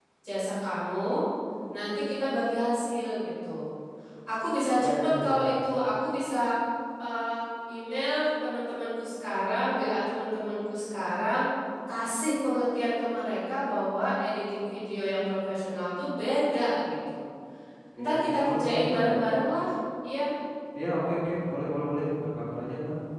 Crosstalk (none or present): present